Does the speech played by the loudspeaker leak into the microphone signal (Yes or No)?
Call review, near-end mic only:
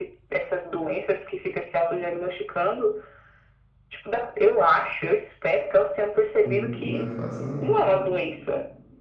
Yes